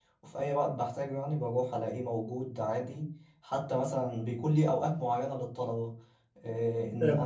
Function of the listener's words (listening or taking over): listening